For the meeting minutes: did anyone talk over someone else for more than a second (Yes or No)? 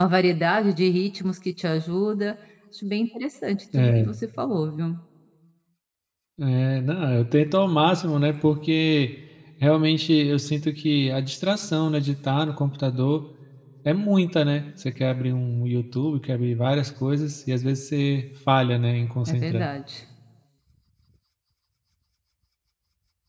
No